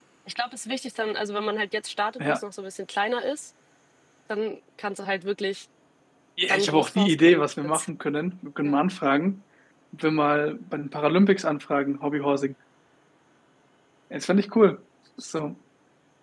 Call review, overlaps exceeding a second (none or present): present